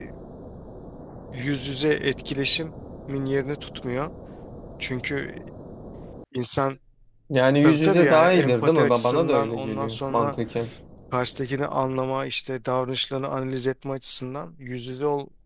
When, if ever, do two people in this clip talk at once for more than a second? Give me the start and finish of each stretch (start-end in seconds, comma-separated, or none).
7.6-10.3